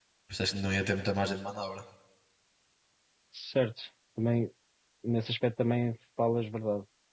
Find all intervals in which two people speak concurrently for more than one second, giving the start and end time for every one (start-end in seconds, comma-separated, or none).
none